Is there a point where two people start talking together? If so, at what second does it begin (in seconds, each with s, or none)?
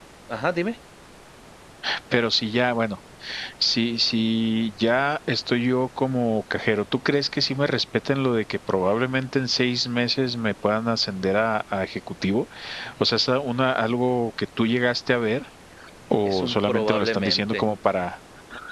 16.2 s